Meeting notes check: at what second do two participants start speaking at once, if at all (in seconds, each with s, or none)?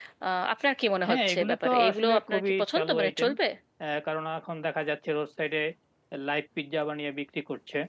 1.0 s